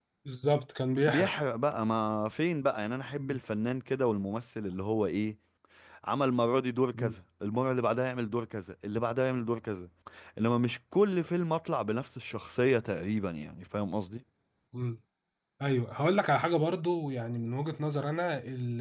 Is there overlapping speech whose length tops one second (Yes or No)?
No